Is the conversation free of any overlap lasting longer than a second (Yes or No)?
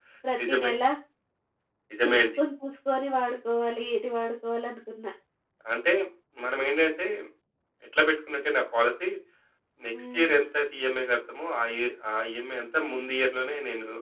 Yes